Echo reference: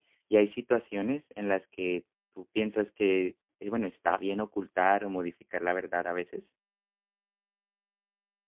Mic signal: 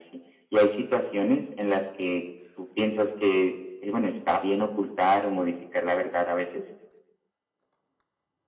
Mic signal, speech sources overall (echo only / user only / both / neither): echo only